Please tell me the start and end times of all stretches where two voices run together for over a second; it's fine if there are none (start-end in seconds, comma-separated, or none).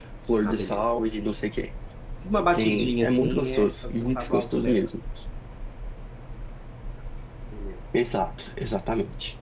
2.5-4.8